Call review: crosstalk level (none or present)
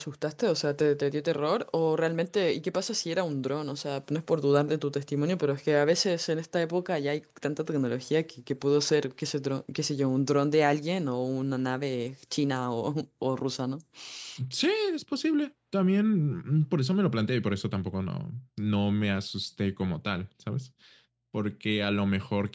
none